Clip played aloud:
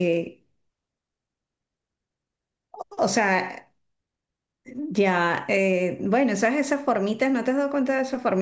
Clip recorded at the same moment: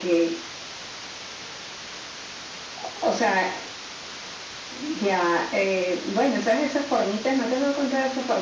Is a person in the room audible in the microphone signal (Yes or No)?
No